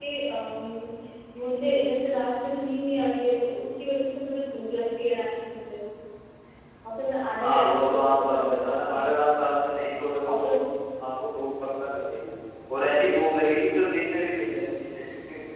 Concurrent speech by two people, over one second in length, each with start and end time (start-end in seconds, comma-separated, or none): 7.4-9.2